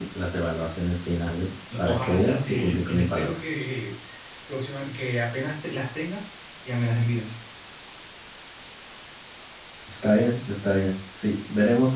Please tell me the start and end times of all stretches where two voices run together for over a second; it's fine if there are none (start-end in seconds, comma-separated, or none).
1.8-3.4